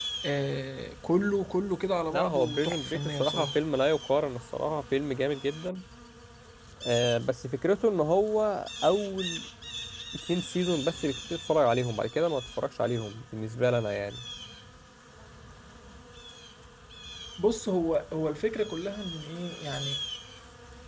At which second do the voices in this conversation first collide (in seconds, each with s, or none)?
2.1 s